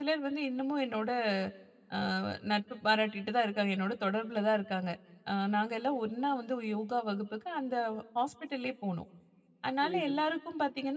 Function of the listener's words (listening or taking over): listening